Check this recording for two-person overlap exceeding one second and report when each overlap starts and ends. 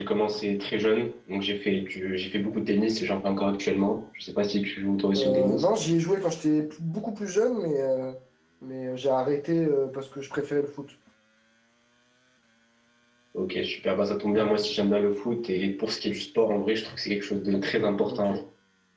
none

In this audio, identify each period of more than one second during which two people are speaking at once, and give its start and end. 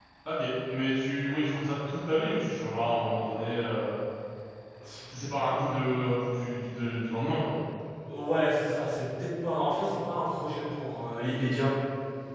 none

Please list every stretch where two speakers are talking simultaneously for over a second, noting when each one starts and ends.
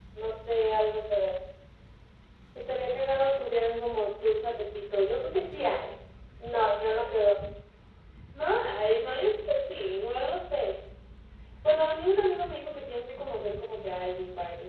none

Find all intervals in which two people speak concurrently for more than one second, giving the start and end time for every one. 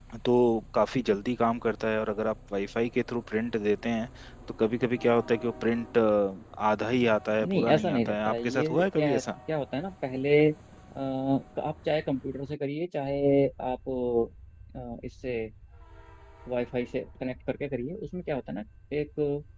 7.4-9.2

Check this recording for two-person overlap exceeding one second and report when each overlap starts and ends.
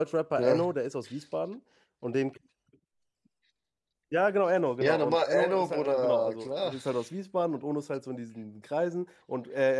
4.8-6.8

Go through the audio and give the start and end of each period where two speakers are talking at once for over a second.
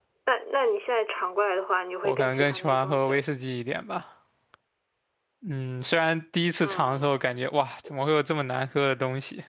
2.0-3.2

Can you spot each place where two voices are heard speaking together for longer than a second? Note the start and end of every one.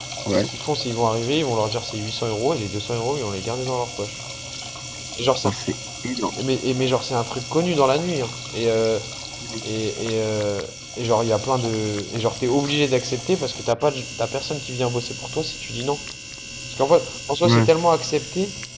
none

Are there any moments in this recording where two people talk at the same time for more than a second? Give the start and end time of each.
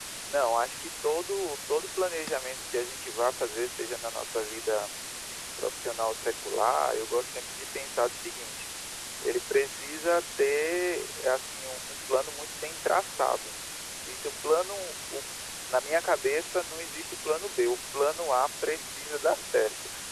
none

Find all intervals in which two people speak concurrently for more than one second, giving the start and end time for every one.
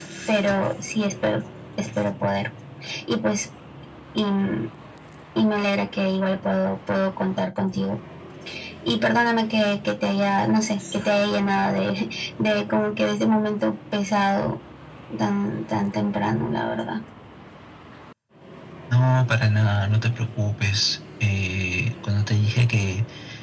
none

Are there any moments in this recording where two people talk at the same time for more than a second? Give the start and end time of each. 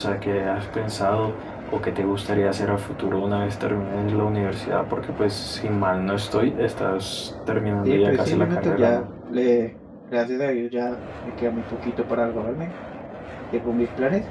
7.8-9.0

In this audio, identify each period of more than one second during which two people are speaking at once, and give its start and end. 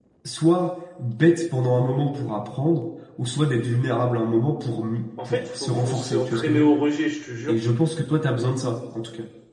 5.3-6.7

